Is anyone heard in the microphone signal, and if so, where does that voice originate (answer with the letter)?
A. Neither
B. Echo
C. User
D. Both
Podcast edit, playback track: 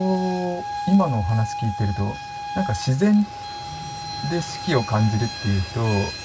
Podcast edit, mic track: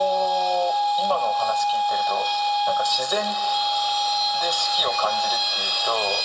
B